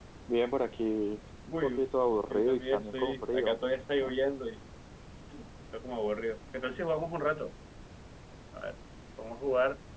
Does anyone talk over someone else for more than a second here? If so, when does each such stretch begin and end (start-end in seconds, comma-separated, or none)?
2.4-3.6